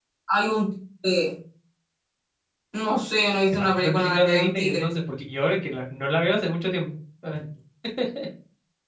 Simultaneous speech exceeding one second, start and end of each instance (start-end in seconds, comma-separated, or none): 3.5-4.9